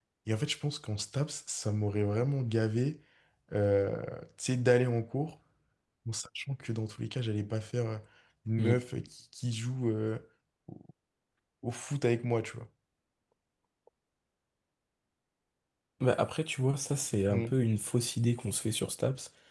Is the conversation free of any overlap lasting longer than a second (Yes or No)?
Yes